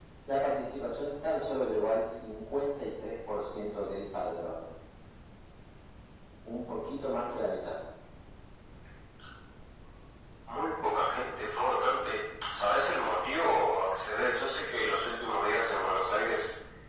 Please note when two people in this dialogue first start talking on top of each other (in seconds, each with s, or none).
none